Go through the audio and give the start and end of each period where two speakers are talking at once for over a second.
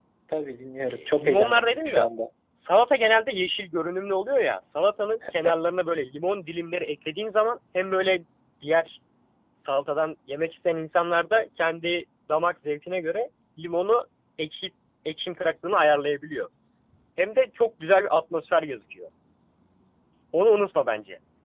0.9-2.1

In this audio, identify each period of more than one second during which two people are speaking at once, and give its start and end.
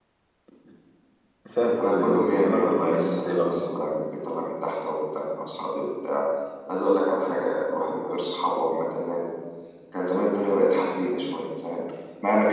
1.8-3.7

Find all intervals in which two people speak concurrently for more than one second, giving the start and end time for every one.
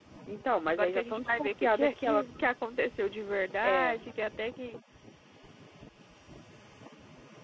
0.7-2.2

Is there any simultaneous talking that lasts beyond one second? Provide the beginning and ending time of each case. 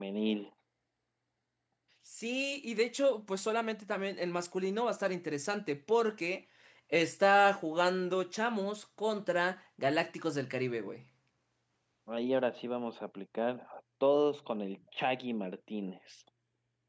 none

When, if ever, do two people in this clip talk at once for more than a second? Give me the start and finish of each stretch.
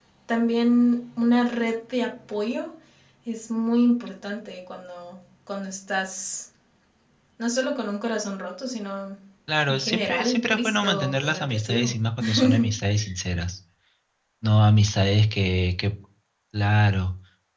9.7-11.9

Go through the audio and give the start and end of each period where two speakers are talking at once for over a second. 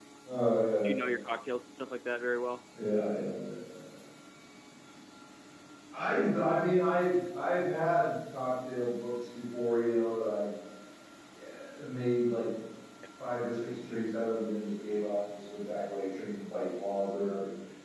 none

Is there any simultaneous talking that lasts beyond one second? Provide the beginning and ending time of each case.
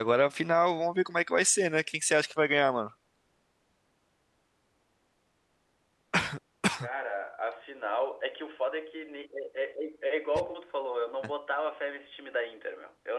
none

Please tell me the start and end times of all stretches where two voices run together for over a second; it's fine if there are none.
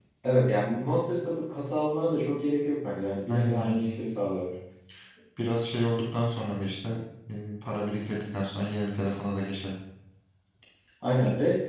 none

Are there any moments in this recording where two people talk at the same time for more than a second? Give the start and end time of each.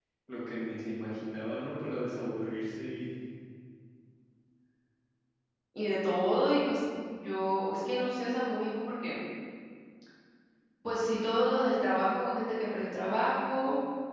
none

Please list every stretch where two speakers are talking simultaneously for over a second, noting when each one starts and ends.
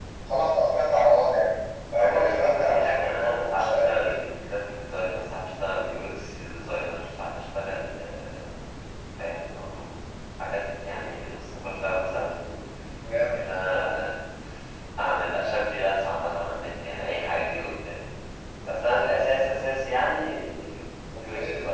2.0-4.2

